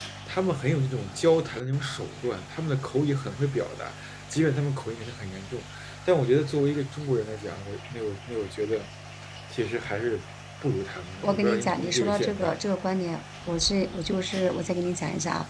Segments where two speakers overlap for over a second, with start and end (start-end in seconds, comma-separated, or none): 11.2-12.6